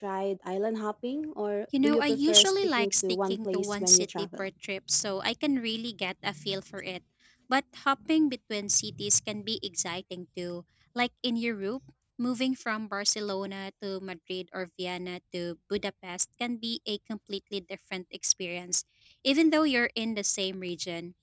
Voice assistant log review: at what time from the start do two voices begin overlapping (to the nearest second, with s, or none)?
2 s